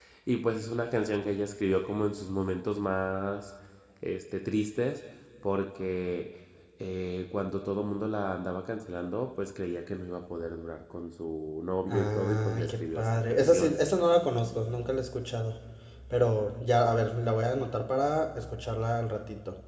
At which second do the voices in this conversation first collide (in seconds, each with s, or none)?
11.9 s